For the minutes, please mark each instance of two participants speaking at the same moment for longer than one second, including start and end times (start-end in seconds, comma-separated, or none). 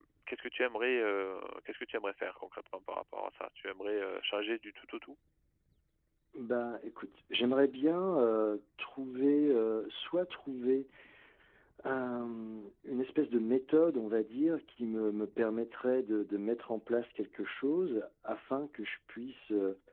none